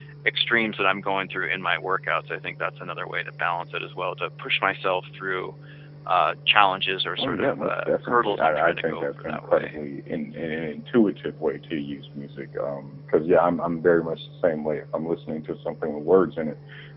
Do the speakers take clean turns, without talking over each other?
No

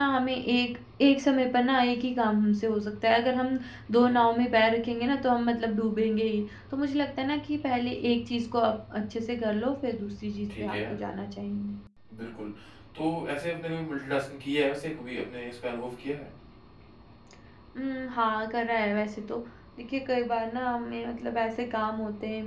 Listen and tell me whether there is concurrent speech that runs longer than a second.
No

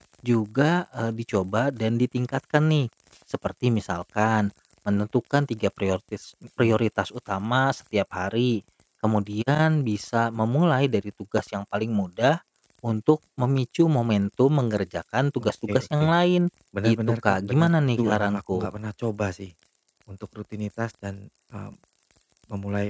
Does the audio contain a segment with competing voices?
Yes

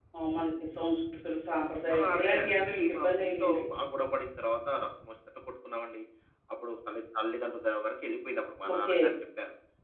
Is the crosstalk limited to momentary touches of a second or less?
No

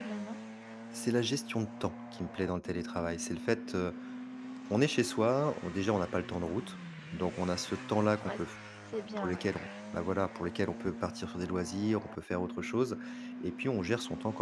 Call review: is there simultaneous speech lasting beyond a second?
No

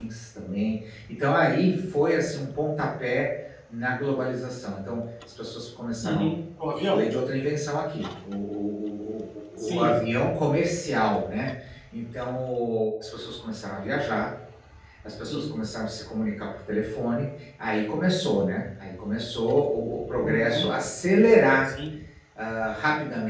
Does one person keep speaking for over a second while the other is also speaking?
No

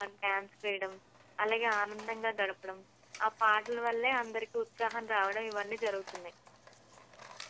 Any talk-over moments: No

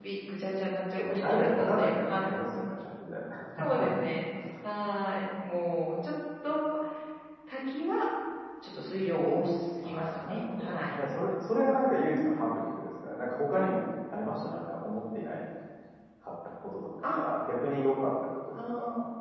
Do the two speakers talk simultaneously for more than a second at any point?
Yes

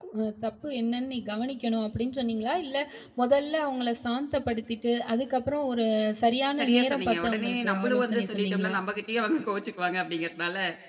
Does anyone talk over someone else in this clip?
Yes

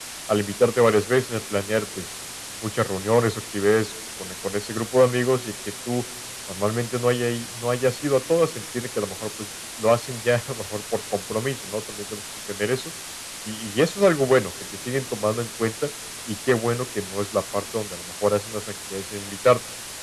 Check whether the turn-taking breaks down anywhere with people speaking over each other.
No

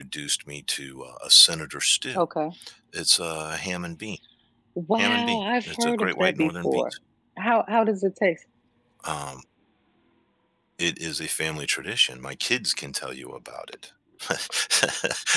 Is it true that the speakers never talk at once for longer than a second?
No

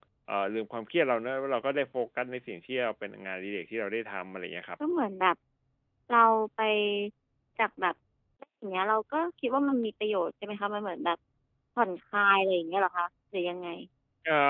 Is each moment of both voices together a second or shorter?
Yes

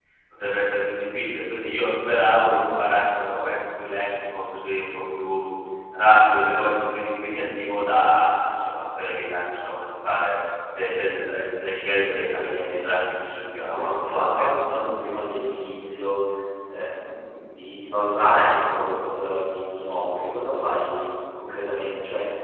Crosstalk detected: Yes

